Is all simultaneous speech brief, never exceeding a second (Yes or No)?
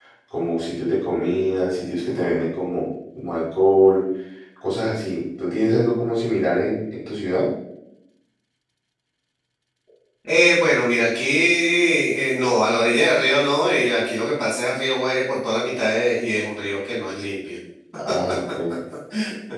Yes